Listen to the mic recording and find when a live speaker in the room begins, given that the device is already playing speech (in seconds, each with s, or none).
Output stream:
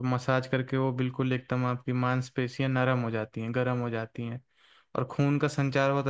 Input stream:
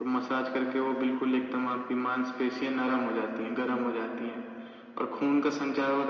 none